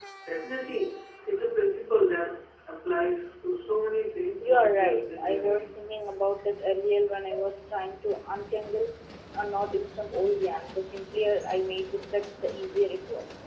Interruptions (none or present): present